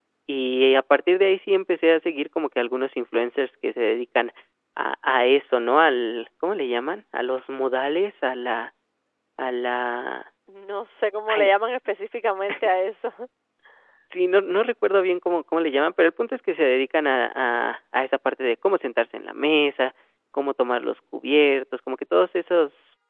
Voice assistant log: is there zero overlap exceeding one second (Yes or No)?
Yes